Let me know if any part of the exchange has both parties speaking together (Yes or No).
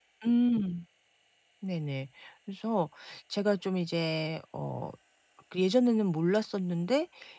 No